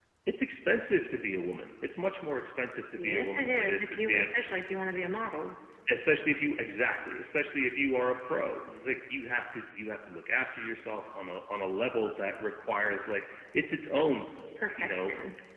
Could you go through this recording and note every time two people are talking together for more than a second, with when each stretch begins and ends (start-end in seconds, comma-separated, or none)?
3.0-4.3